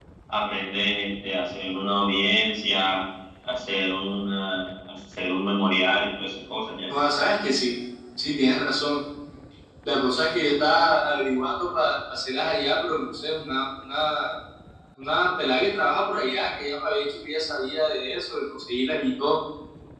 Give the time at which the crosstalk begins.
none

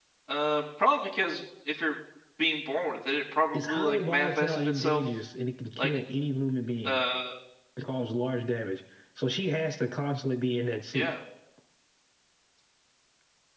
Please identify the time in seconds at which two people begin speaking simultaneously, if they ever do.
4 s

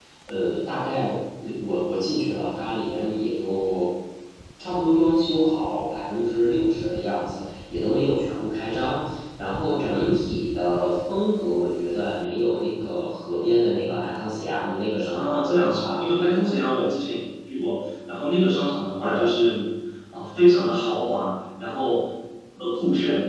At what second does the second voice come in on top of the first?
15 s

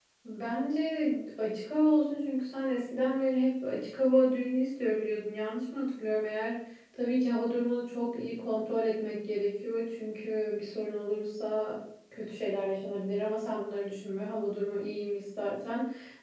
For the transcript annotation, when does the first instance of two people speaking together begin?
none

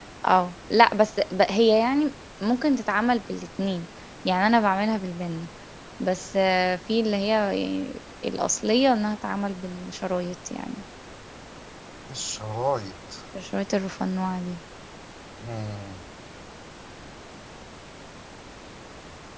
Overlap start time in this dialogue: none

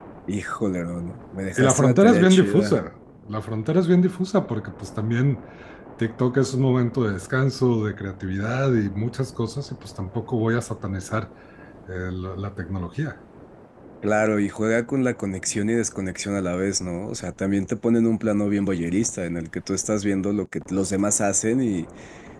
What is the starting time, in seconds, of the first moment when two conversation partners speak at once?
2 s

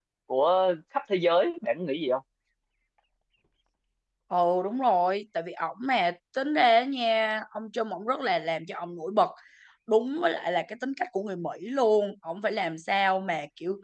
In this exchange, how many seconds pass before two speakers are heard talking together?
none

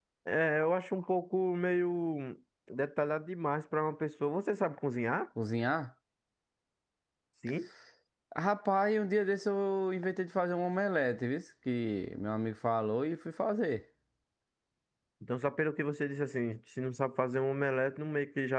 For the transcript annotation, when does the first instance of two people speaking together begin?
none

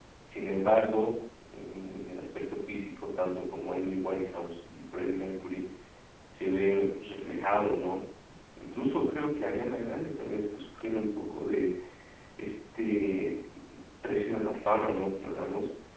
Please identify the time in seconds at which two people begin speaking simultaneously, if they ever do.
none

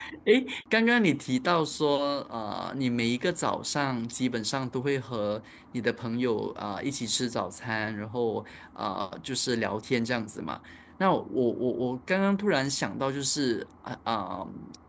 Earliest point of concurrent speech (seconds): none

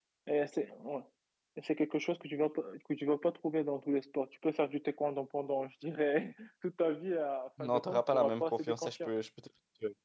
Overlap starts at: 8 s

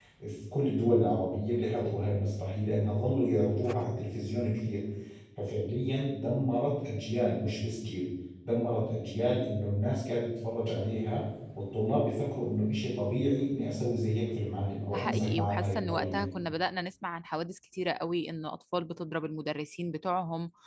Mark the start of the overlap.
15 s

